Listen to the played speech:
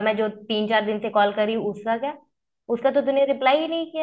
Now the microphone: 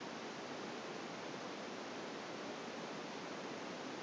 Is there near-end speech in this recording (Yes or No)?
No